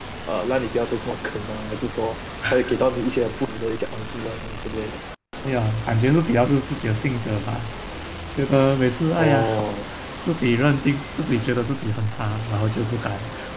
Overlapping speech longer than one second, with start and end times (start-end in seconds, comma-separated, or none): none